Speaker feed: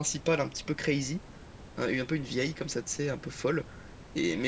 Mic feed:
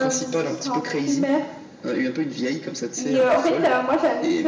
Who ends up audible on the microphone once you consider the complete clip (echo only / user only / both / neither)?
both